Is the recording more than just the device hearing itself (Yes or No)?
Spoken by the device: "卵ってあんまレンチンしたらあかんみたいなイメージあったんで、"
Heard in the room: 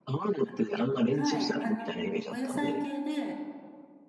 Yes